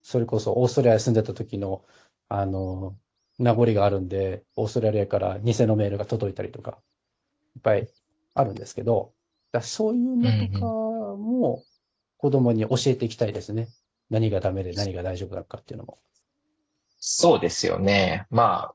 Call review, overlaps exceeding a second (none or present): none